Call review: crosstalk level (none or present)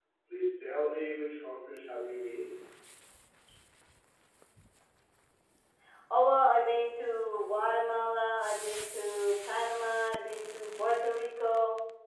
none